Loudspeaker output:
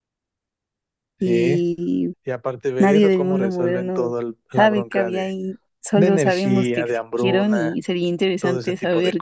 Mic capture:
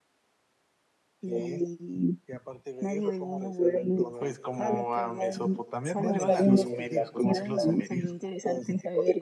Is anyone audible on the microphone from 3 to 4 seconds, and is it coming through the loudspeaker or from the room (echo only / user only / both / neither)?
echo only